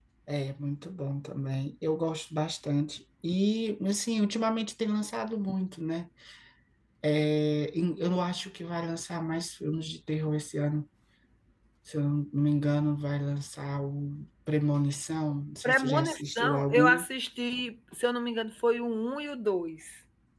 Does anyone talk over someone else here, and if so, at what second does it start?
15.6 s

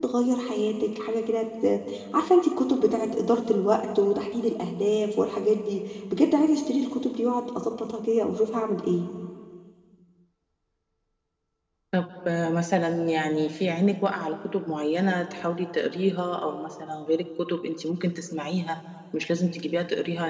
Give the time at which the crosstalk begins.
none

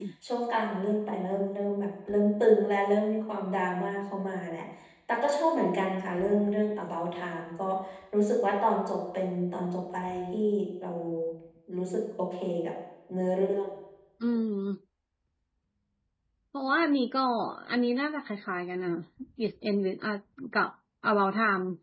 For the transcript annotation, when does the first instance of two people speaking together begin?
none

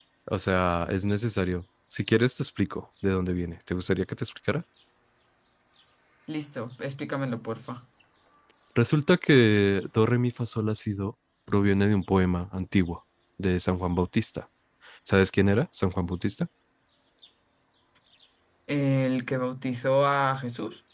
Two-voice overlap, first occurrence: none

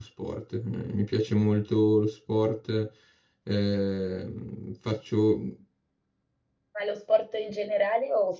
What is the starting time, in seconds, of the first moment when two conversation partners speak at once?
none

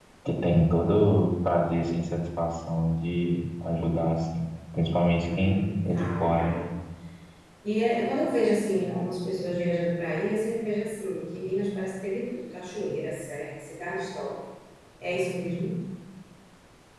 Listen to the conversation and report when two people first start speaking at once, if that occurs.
5.2 s

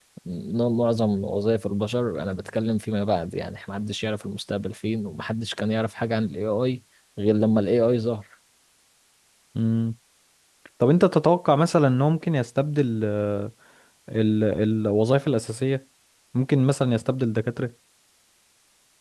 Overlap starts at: none

